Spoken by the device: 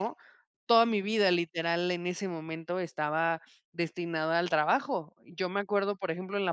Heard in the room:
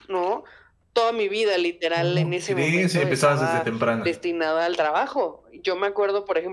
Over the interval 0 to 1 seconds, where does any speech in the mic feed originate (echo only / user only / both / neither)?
echo only